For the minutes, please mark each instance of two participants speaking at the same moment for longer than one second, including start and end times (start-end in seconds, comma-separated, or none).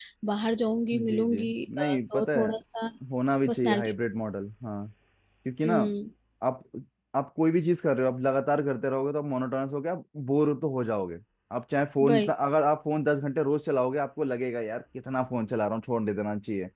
0.9-2.5